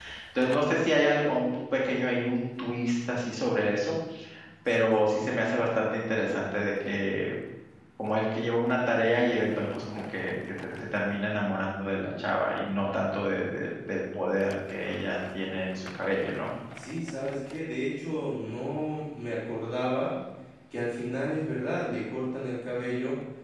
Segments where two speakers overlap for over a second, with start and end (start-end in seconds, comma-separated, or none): none